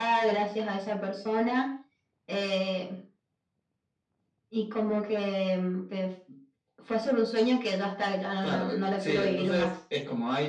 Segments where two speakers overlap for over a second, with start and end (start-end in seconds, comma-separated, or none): 8.4-9.7